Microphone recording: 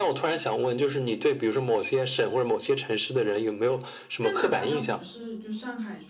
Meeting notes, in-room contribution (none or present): present